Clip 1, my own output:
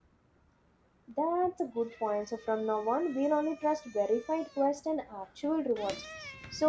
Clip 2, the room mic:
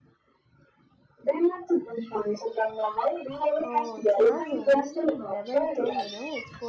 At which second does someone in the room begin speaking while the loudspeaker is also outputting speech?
3.6 s

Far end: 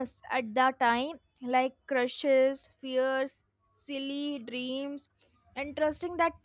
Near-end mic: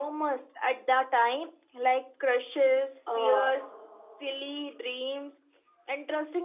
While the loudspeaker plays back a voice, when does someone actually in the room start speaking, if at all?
3.1 s

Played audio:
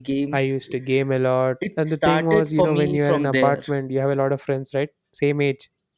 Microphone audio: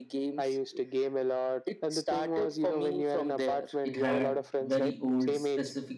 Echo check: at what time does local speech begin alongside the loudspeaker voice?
3.8 s

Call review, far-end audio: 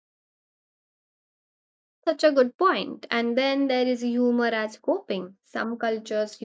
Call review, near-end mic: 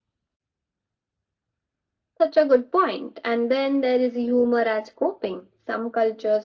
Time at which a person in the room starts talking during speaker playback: none

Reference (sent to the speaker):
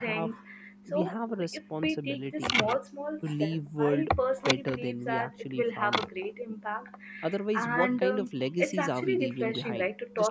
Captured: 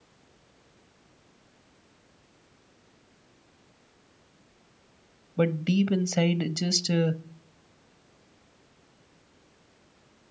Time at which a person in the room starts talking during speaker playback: 5.3 s

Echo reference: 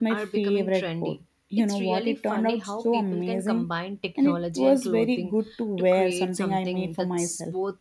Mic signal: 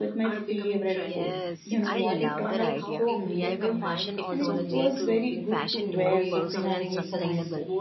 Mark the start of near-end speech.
0.9 s

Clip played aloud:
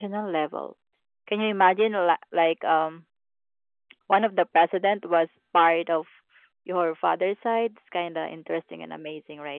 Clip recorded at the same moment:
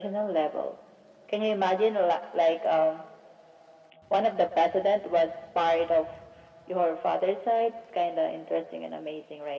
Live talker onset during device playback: none

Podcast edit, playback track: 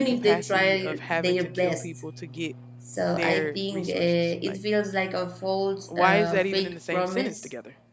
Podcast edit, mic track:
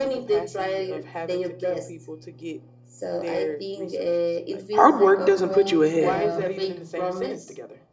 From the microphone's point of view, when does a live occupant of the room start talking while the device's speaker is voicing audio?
4.7 s

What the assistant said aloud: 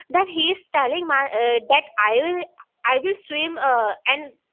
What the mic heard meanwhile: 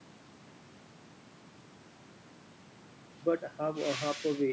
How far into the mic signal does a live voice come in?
3.2 s

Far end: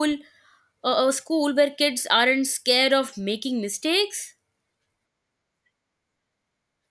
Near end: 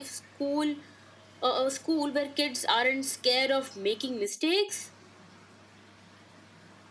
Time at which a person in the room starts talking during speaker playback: none

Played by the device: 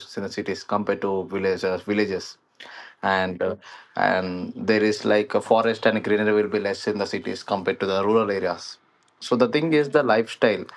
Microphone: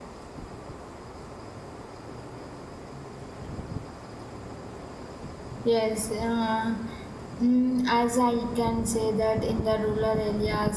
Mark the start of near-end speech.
5.6 s

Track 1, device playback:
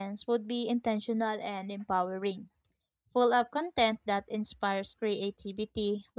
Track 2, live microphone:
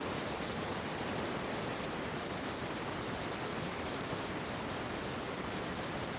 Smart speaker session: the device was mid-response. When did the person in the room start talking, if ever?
none

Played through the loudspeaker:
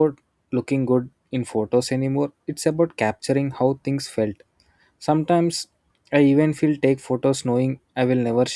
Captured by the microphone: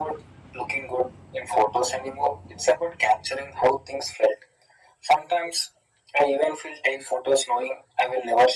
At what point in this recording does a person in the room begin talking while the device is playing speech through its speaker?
none

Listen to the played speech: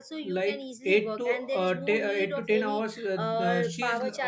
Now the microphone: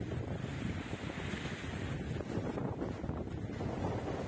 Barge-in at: none

